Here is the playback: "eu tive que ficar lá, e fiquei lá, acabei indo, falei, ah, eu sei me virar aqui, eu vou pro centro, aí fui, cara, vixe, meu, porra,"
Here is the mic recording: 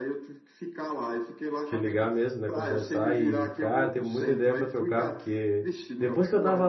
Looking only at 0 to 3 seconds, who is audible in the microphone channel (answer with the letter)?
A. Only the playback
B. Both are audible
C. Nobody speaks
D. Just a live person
B